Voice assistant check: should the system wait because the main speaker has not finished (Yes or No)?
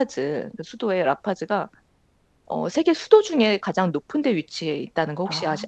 No